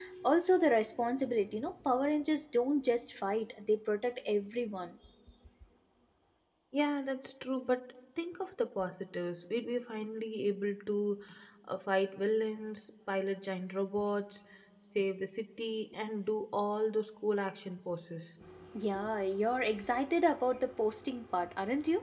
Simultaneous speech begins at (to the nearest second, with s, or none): none